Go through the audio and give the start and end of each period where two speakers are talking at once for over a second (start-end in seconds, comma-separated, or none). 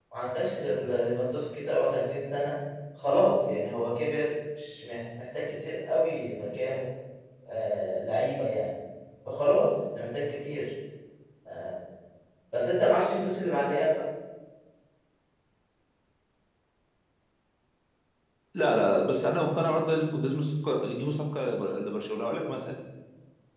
none